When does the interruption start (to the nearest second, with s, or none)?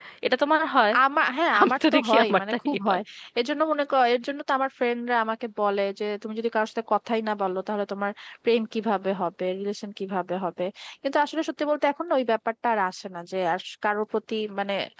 2 s